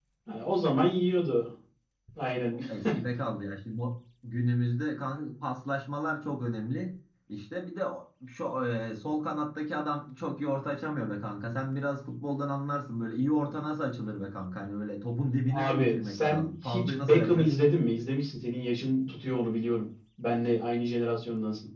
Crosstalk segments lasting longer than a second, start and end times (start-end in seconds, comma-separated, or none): 15.5-17.5